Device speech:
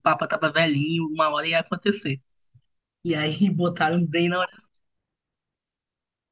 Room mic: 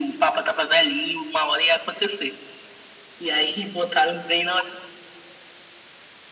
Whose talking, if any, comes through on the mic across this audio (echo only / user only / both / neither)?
echo only